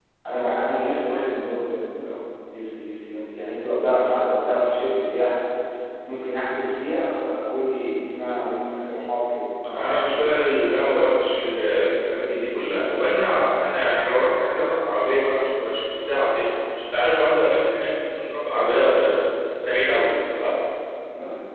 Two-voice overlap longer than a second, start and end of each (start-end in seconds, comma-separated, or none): none